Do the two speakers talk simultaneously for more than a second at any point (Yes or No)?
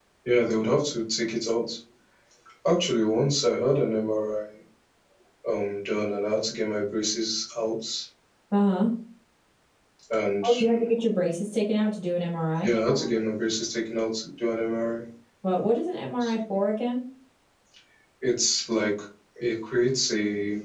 No